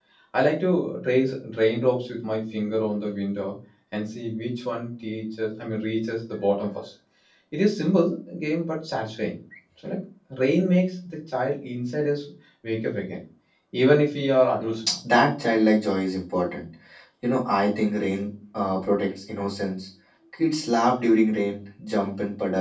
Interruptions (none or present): none